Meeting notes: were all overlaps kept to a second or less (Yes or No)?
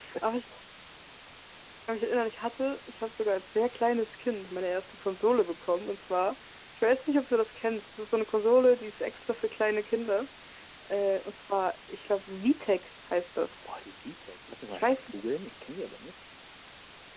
Yes